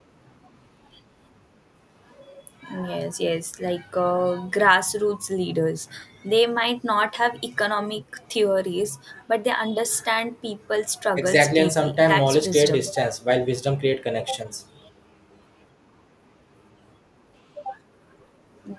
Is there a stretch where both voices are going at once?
Yes, from 11.2 s

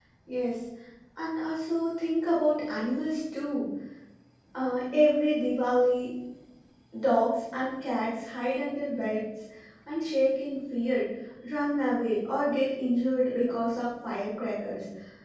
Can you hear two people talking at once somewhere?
No

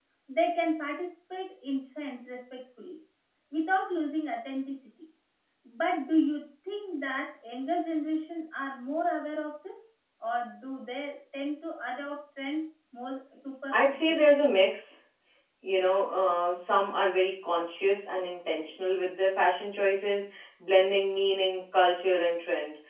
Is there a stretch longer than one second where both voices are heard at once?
No

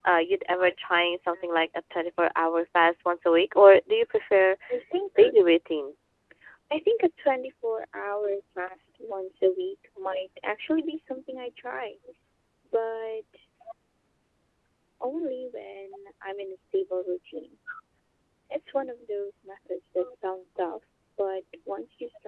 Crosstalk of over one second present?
No

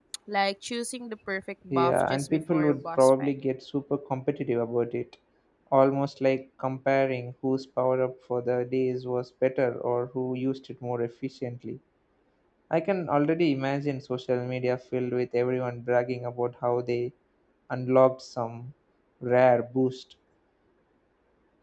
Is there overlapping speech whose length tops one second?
Yes, from 1.7 s

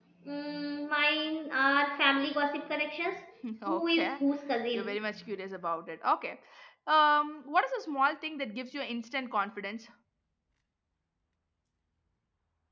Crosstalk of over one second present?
No

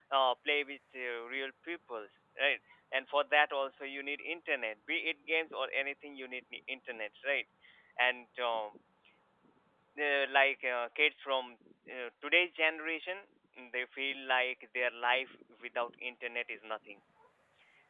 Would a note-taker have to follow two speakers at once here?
No

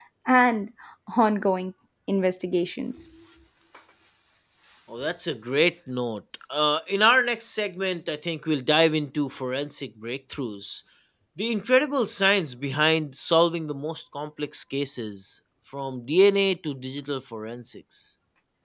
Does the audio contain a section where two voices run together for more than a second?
No

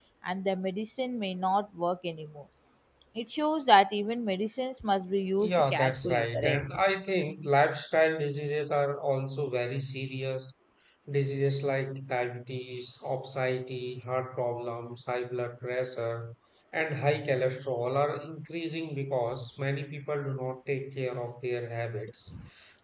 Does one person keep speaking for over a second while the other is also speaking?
Yes, from 5.4 s

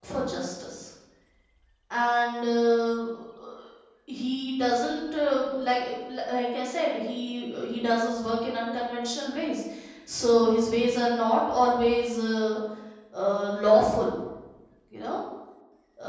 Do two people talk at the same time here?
No

